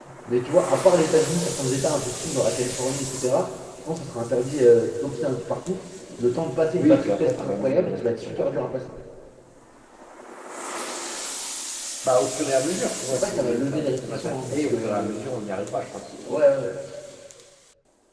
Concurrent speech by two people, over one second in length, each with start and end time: 6.8-8.5, 13.0-15.1

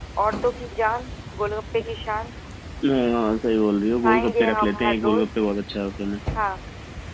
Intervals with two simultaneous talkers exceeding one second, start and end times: 4.0-5.2

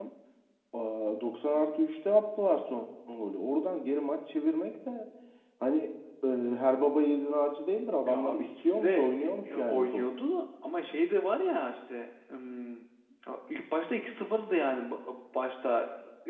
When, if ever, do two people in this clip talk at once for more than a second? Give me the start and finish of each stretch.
8.1-10.1

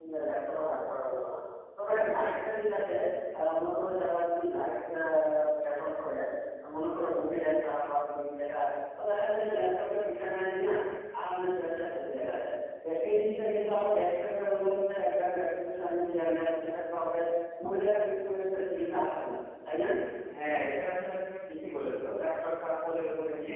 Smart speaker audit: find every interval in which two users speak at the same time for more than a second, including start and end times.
none

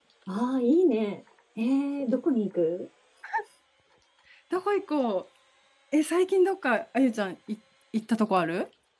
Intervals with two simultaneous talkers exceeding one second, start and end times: none

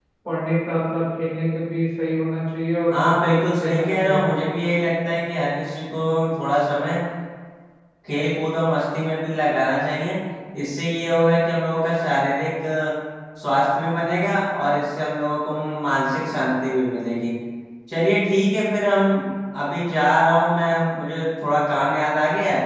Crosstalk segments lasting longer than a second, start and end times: 2.9-4.3

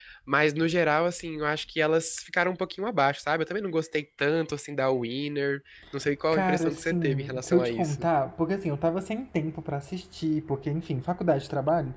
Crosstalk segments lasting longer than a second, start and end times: 6.3-8.1

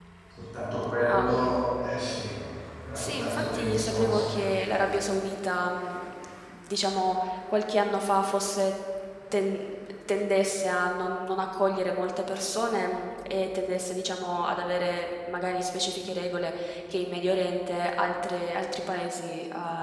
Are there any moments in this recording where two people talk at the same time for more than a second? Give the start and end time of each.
3.0-4.3

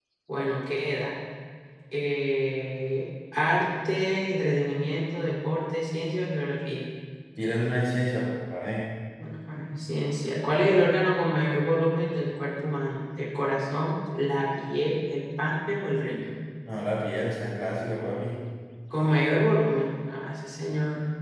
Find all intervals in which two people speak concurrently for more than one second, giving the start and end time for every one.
none

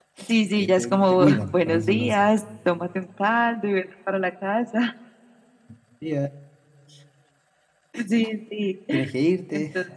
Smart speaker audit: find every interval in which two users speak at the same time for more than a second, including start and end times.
0.6-2.2

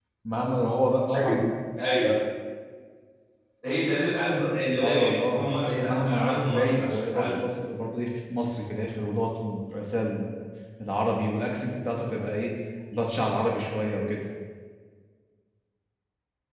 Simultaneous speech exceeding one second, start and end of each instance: 4.8-7.3

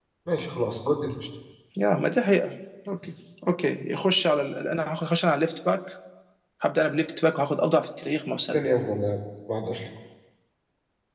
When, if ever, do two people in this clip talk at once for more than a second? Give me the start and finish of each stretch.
none

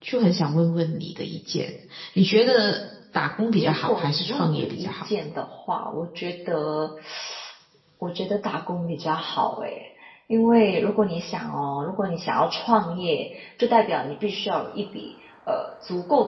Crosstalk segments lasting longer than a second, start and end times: 3.6-4.9

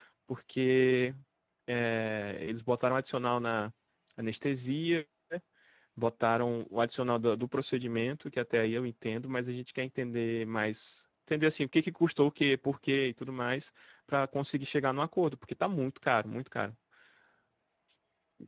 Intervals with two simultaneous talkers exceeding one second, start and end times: none

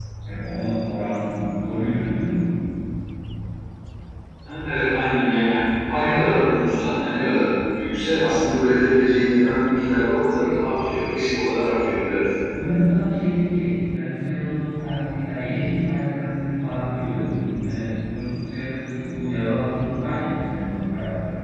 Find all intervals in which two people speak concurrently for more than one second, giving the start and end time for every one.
none

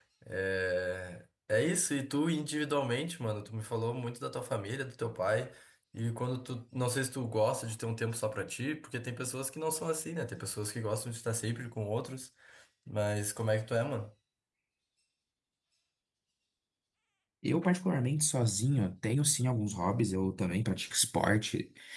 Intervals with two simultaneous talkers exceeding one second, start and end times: none

